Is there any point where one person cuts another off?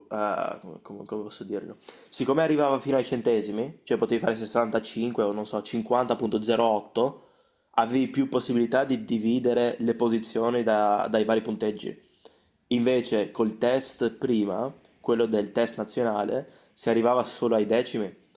No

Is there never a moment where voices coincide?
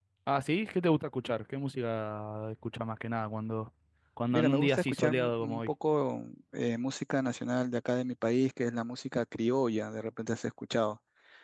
No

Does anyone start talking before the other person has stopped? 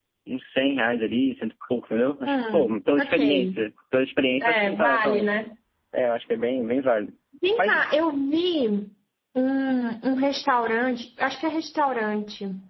Yes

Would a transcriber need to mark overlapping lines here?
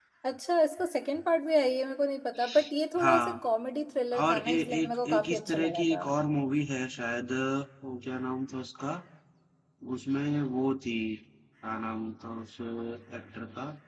Yes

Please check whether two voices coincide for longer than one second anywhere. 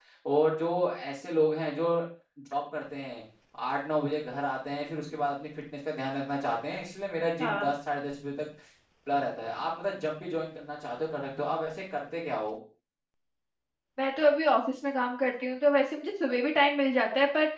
No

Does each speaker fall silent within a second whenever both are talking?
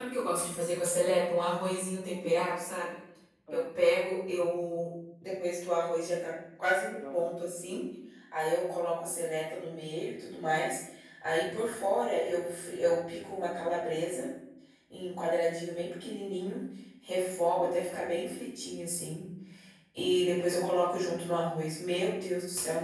Yes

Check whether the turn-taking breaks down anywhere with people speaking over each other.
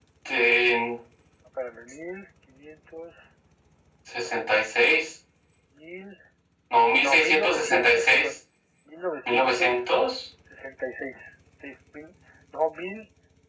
Yes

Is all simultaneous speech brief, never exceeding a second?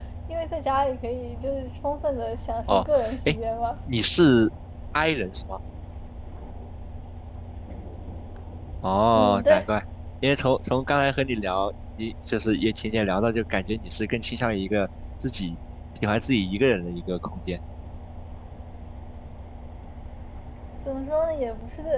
Yes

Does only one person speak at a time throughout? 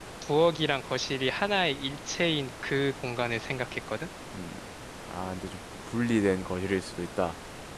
Yes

